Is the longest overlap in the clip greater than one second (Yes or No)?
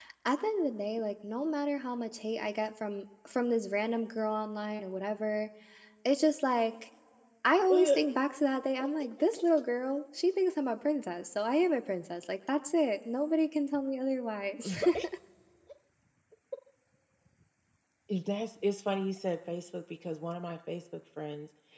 No